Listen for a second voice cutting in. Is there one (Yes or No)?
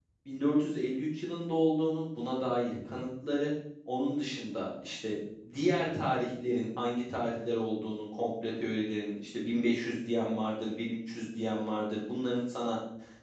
No